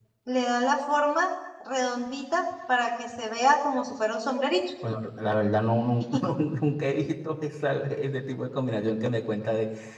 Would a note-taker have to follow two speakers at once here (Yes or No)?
No